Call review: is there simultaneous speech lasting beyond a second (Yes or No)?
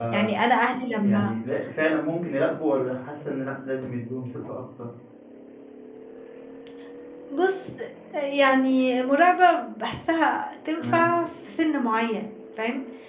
No